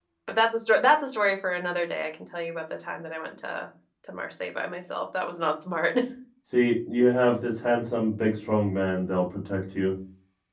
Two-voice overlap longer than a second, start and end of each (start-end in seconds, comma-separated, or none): none